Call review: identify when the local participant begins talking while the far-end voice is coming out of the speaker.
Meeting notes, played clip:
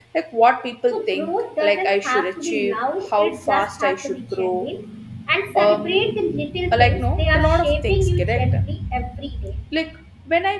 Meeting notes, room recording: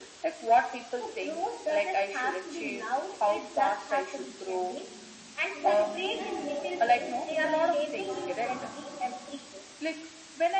5.5 s

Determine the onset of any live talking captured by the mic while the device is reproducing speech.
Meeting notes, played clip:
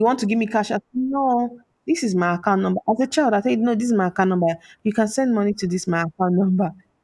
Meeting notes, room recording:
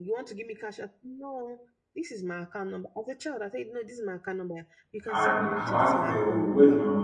5.1 s

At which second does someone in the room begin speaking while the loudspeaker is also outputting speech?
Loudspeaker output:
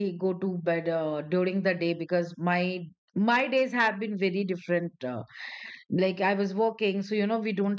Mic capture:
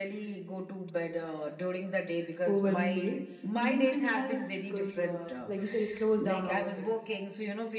2.5 s

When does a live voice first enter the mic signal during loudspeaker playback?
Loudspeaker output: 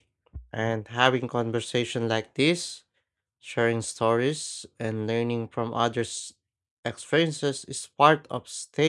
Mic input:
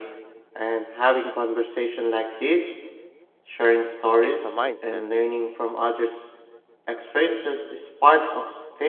4.2 s

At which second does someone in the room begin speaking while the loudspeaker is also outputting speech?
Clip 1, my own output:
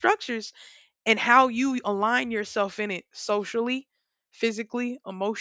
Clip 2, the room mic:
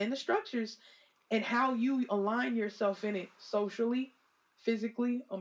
none

